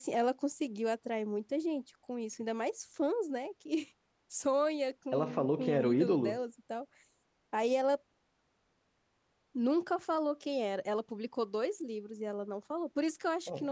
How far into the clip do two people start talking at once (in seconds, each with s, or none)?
5.1 s